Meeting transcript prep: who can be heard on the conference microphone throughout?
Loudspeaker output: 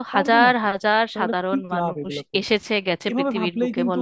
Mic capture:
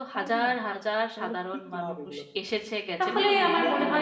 both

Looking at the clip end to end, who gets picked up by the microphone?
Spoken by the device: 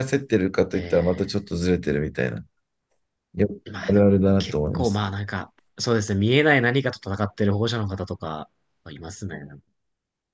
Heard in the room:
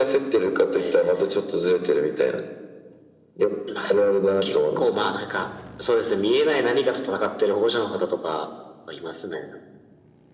echo only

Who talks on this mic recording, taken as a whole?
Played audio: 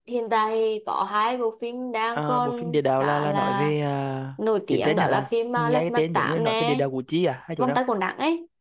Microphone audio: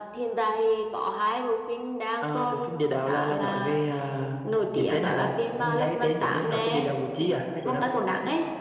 echo only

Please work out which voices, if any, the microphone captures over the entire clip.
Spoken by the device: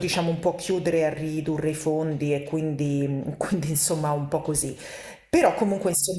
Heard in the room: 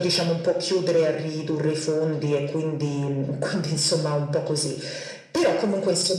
echo only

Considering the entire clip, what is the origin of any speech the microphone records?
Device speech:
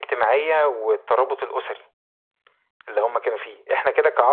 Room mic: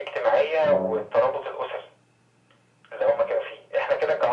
both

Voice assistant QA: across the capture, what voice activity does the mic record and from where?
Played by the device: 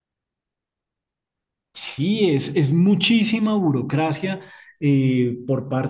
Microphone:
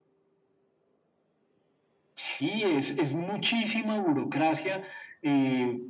echo only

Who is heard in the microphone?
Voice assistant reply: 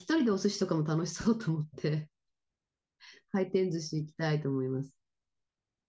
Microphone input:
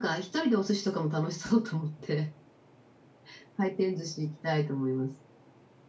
echo only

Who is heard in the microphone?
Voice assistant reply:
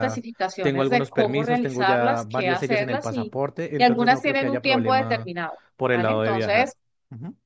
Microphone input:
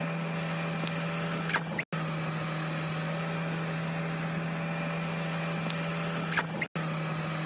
neither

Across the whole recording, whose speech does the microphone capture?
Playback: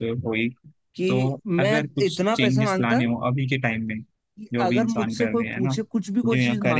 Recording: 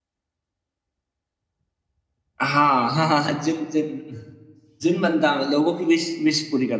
user only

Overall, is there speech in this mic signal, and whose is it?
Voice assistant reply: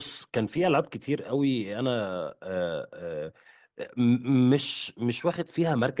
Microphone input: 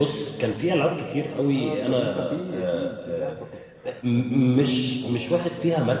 both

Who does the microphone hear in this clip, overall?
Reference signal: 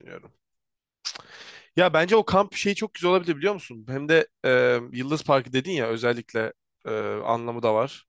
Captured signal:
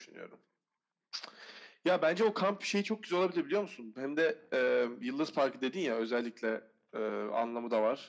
echo only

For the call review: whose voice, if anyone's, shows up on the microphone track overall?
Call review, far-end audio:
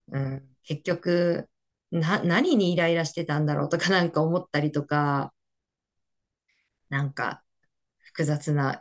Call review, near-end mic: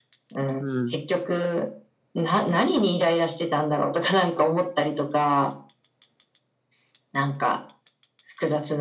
both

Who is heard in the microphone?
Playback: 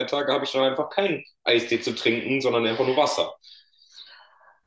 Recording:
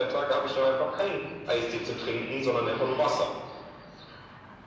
echo only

